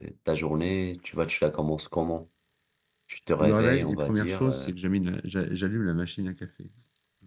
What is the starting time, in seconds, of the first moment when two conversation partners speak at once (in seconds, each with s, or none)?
3.4 s